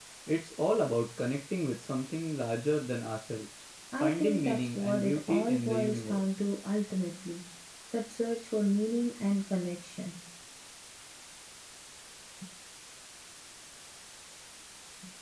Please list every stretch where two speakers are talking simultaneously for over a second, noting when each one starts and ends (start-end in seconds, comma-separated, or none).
4.0-6.4